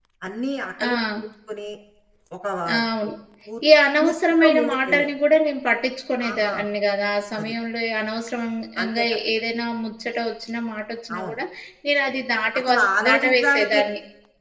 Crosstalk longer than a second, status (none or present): present